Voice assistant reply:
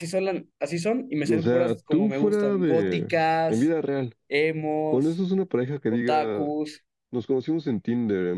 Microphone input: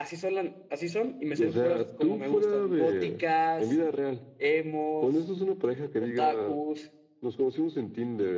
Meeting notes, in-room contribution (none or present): none